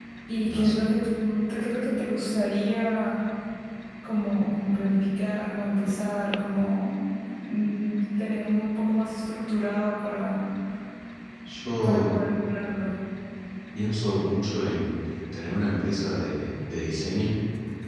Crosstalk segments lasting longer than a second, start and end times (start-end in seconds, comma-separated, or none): none